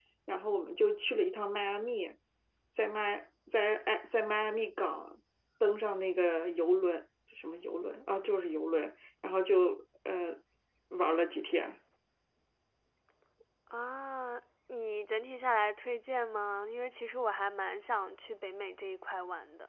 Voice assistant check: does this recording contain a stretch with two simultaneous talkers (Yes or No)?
No